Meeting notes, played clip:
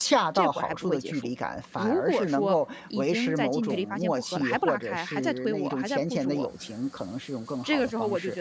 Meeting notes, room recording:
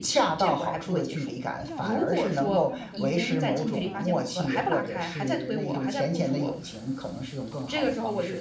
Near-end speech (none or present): present